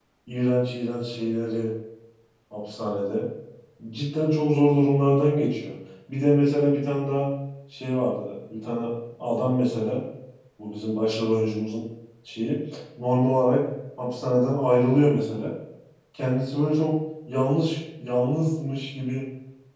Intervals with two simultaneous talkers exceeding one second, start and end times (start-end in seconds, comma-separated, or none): none